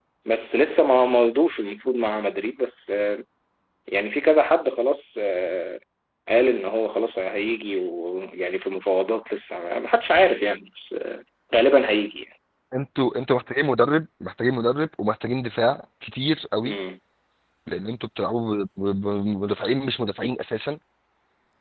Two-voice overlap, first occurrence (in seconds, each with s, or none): none